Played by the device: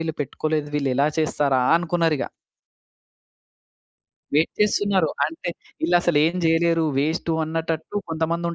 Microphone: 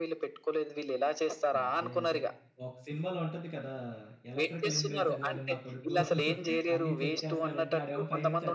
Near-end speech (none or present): present